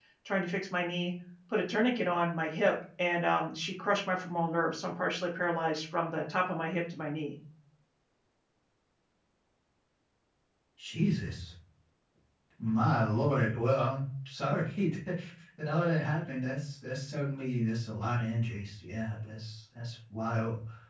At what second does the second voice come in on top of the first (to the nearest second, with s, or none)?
none